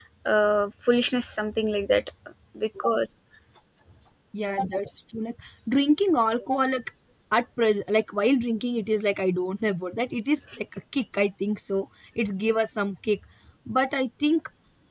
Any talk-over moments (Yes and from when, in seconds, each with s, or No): No